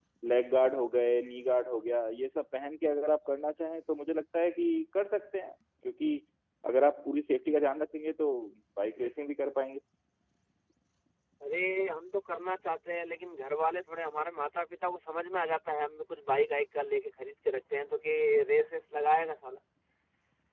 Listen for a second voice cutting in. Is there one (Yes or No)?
No